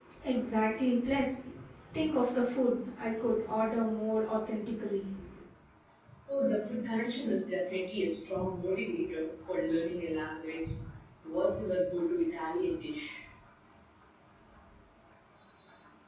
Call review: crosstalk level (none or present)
none